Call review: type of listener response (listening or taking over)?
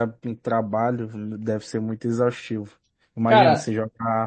listening